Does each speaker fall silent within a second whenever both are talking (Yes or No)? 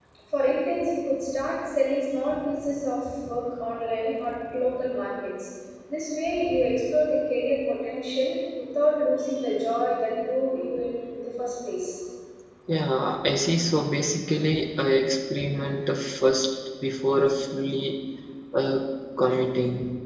Yes